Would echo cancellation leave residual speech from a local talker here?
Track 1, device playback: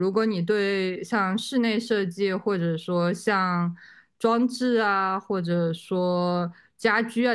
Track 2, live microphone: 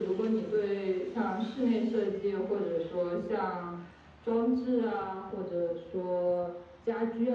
No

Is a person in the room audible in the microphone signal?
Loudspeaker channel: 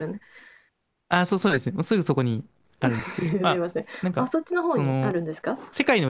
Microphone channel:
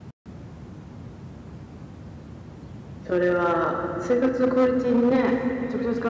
Yes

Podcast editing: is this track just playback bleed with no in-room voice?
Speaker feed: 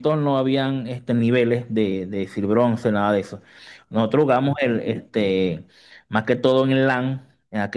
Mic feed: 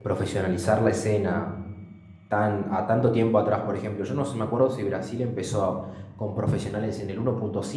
No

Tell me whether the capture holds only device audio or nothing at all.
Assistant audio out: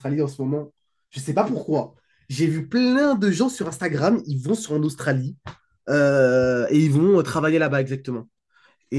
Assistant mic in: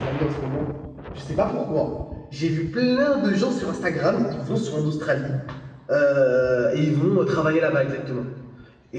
Yes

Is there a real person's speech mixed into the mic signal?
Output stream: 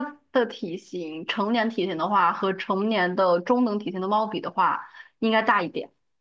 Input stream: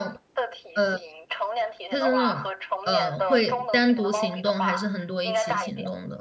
Yes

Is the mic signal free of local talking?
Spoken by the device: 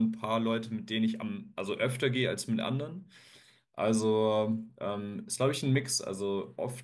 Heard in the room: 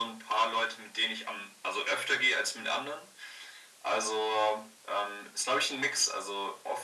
Yes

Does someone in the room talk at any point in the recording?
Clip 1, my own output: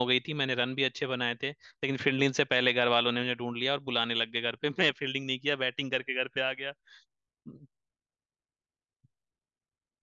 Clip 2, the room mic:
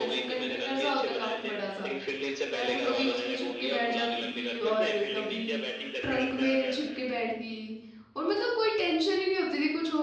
Yes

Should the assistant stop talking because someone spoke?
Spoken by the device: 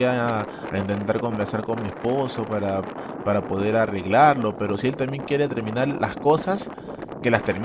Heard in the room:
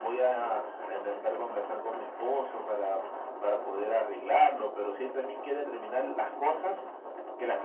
No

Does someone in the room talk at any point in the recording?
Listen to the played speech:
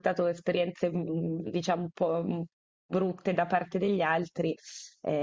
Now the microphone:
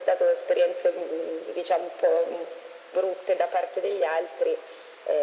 No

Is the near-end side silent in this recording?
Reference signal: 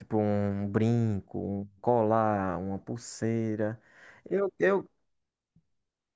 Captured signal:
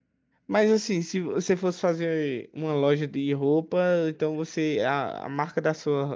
No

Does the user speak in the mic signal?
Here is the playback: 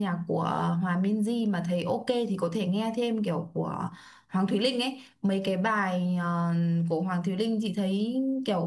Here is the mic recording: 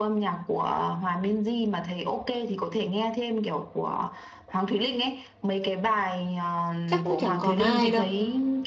Yes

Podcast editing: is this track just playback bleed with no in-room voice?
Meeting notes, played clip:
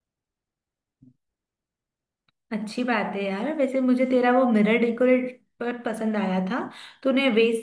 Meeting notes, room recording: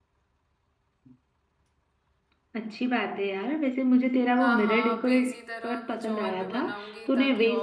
No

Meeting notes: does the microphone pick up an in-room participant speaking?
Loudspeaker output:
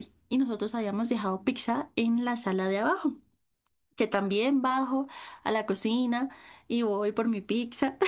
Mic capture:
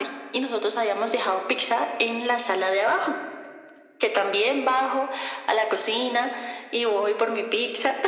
No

